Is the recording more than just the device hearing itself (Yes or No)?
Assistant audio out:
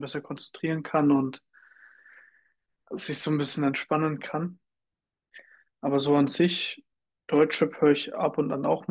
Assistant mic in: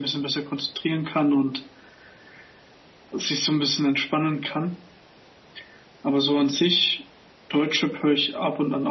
No